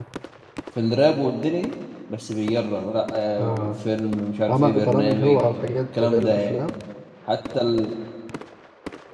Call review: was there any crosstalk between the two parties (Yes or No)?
Yes